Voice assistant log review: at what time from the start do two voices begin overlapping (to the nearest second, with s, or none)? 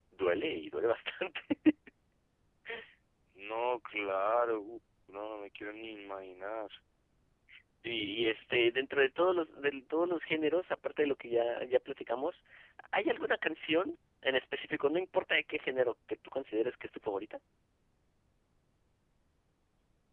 none